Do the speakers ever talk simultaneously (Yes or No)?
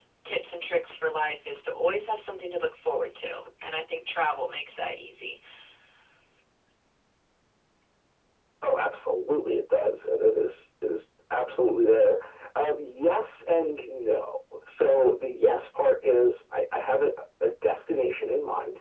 No